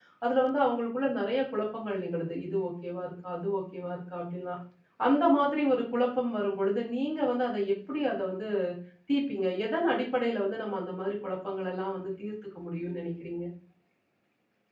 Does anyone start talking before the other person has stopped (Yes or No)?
No